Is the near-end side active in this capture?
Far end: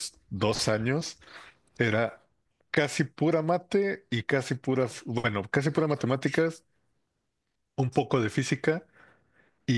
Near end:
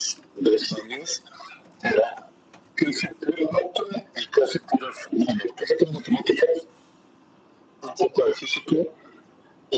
No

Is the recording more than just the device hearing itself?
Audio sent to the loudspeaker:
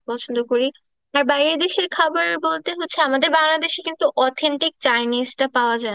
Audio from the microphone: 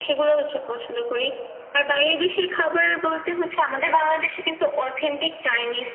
No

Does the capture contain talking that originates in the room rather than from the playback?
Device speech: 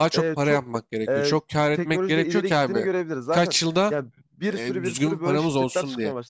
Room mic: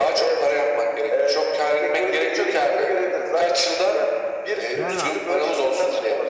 Yes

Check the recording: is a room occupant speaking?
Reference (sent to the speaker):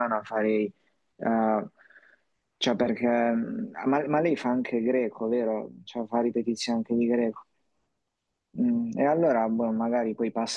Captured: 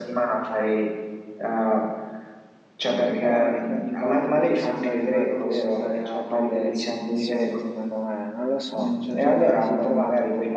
Yes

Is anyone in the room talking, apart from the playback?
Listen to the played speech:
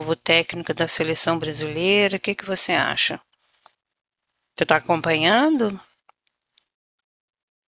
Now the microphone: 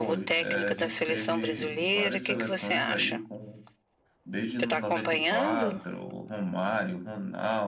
Yes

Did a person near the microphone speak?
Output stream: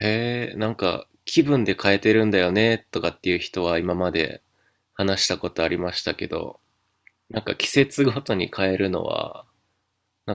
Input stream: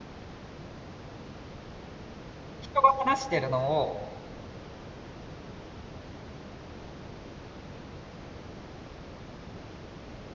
Yes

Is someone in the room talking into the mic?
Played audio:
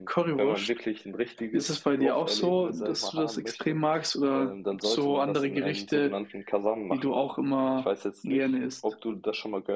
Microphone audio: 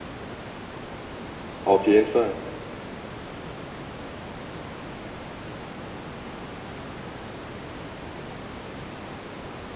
Yes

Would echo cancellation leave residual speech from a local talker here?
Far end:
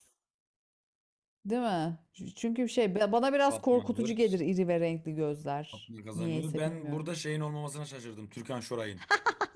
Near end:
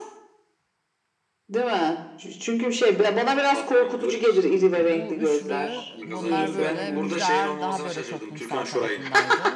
Yes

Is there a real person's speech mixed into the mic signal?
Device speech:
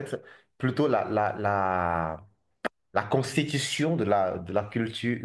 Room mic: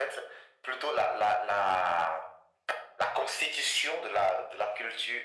No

